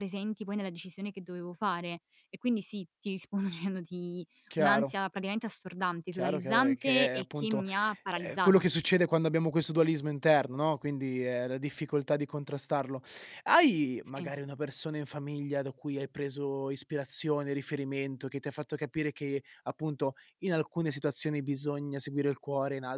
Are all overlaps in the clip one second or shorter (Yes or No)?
No